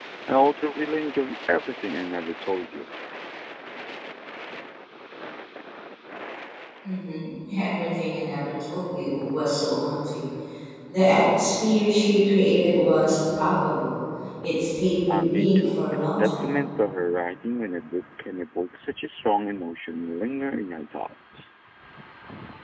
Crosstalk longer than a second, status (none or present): present